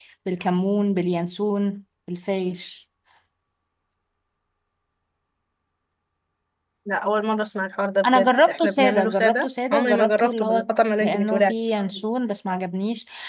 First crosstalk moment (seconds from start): 8.0 s

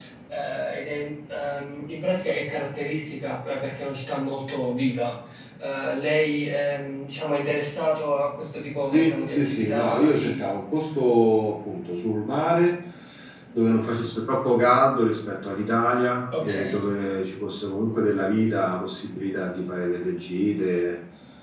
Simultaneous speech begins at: 8.9 s

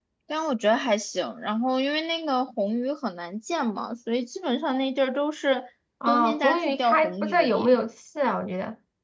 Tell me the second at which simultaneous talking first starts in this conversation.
6.1 s

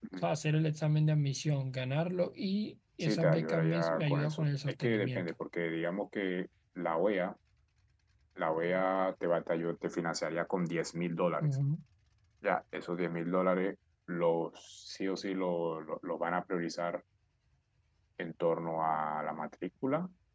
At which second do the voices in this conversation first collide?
3.0 s

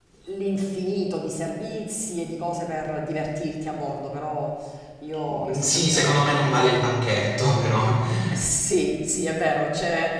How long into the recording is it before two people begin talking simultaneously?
5.3 s

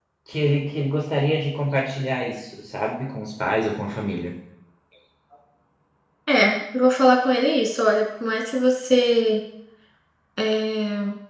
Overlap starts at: none

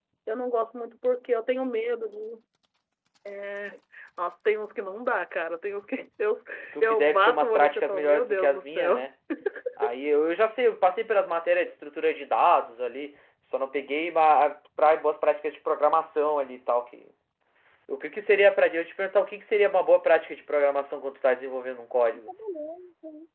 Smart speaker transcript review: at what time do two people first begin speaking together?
6.8 s

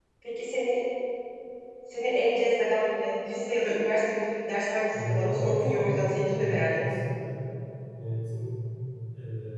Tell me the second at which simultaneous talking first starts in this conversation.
4.9 s

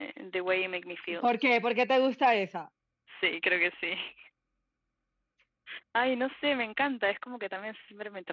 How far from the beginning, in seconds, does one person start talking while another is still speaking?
none

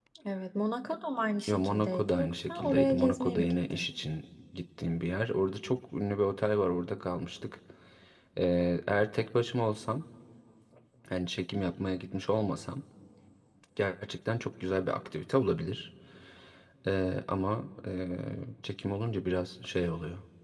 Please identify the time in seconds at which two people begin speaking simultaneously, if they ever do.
1.5 s

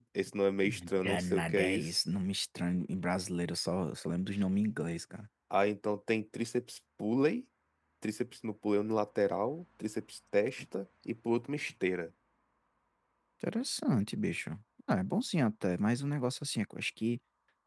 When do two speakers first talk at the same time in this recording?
0.7 s

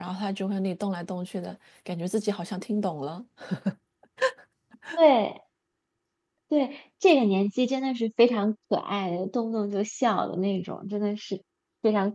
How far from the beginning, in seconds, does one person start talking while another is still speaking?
none

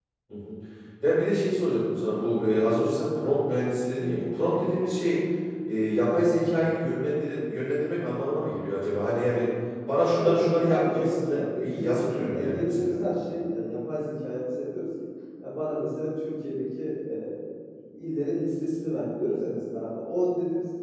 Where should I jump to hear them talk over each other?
10.1 s

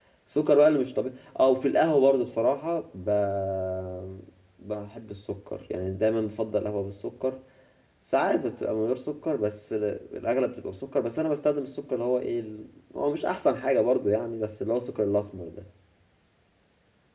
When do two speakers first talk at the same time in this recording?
none

